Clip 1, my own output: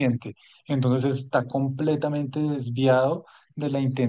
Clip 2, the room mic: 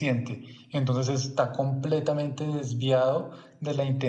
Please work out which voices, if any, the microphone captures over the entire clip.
echo only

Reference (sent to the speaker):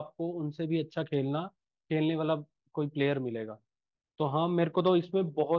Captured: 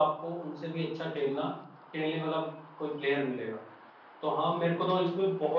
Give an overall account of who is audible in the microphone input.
echo only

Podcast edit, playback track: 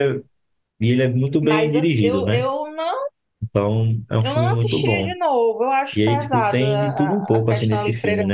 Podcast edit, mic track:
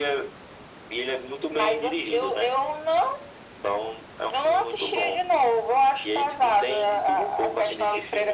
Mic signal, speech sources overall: echo only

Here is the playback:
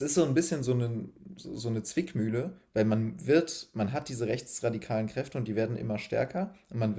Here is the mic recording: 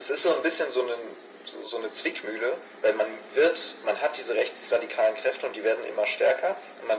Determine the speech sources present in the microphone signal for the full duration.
echo only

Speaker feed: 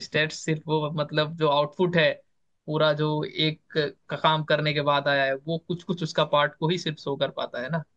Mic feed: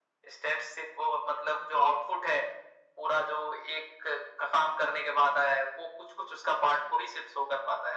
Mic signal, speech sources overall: echo only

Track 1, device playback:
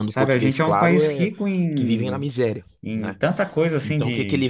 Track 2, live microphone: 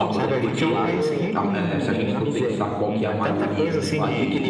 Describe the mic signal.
both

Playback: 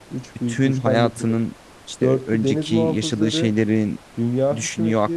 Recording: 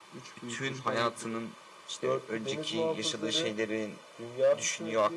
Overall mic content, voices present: echo only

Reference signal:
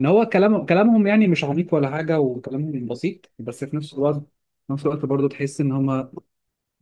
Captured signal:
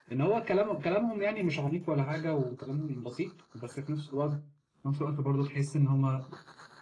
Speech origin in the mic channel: echo only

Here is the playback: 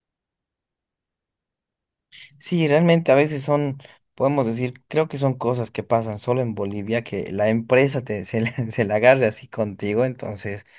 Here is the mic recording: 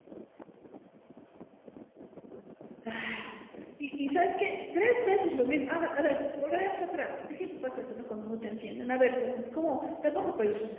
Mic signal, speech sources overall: user only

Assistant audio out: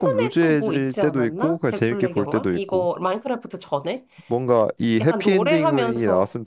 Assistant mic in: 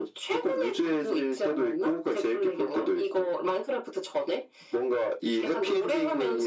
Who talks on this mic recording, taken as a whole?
echo only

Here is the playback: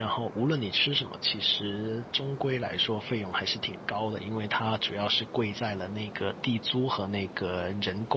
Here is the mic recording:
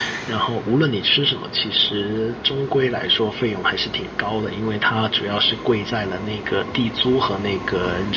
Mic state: echo only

